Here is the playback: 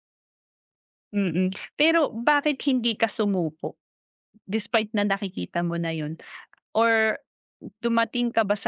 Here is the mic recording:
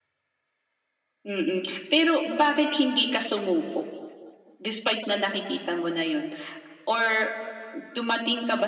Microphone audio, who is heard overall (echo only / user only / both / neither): echo only